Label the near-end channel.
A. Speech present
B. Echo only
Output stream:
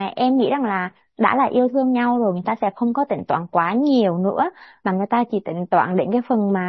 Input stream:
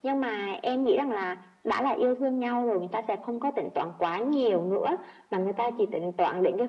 B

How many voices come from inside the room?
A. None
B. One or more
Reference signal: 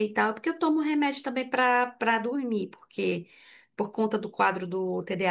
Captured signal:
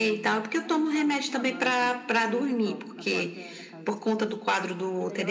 B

